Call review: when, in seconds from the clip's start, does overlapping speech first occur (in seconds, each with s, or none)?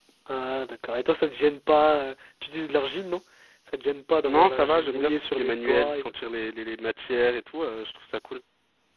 4.2 s